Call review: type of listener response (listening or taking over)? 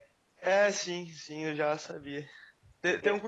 listening